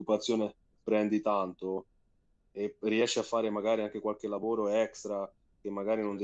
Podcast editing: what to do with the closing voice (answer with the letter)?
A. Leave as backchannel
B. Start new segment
A